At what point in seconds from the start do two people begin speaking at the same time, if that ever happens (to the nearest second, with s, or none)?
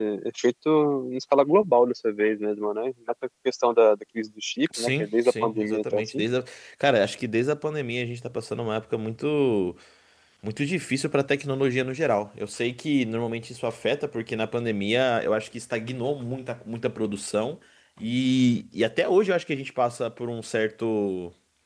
5 s